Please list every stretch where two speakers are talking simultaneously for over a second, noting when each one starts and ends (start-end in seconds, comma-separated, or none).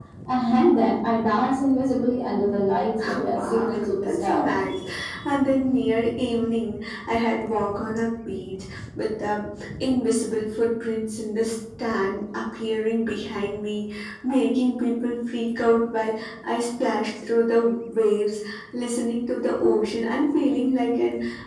3.1-4.5